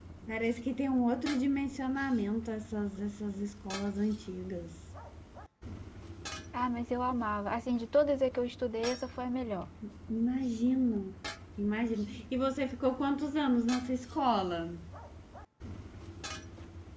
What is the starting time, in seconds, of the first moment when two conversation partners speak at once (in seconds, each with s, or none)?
none